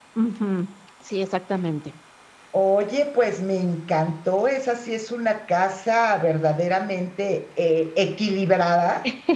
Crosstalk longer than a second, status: none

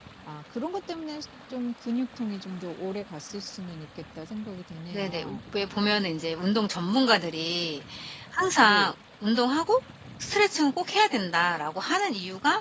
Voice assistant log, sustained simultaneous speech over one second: none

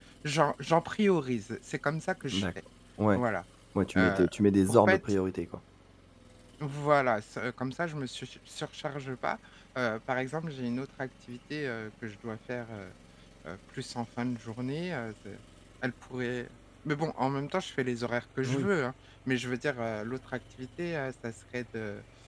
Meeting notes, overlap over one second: none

